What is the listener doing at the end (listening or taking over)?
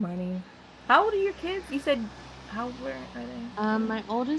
taking over